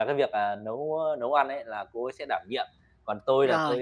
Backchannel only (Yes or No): Yes